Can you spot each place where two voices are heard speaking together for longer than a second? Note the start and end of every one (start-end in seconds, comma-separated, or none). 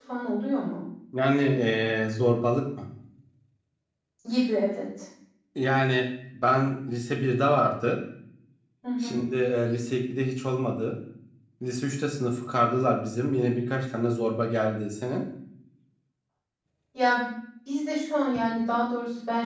none